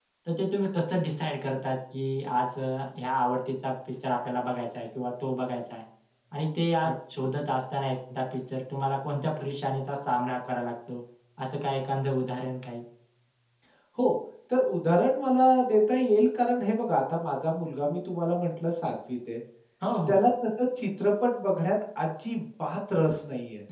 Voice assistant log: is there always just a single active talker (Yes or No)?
Yes